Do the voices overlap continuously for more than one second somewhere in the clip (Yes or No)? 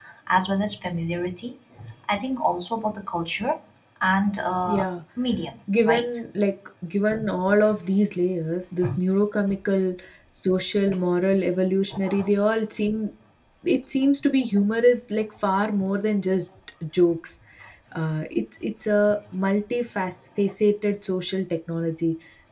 No